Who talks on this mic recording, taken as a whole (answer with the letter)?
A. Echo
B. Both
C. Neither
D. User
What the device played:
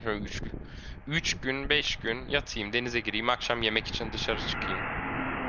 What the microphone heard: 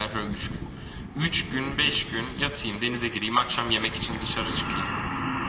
A